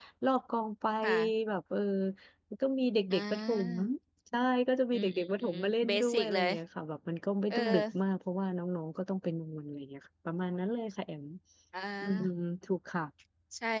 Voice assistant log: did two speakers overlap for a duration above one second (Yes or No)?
Yes